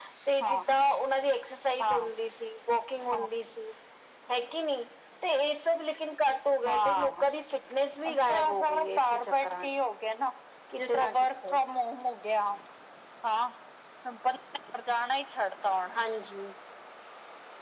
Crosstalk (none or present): present